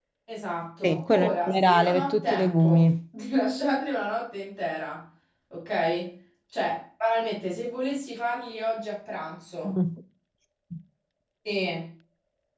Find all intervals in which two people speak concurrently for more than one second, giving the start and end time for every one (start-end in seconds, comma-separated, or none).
0.8-2.9